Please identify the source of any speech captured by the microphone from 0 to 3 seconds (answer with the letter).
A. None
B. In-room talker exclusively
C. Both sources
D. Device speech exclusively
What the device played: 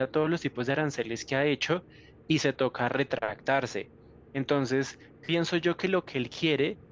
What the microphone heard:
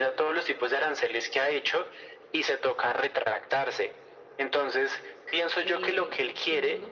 D